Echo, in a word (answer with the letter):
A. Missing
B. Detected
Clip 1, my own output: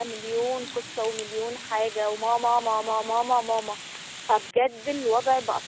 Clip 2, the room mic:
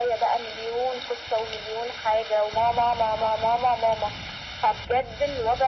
B